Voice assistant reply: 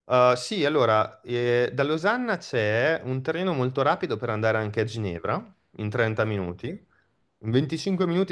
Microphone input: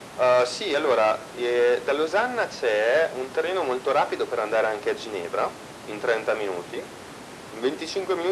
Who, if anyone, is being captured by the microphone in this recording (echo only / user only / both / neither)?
echo only